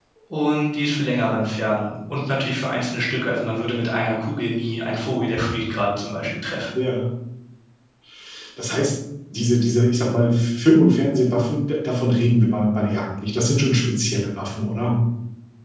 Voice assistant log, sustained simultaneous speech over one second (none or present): none